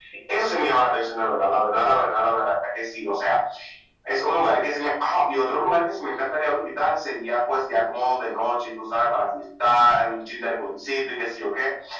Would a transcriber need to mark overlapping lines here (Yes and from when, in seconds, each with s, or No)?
No